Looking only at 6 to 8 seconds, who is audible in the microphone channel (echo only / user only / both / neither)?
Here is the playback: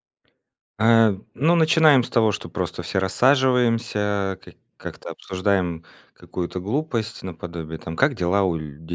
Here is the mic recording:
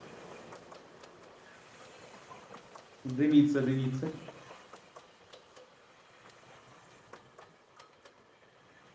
neither